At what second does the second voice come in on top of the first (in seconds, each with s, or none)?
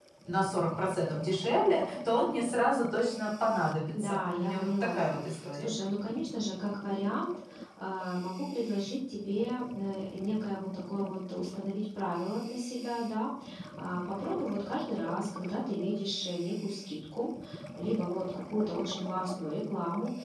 3.9 s